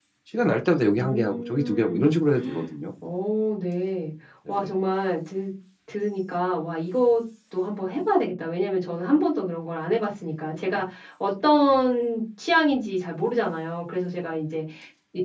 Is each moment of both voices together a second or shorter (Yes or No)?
No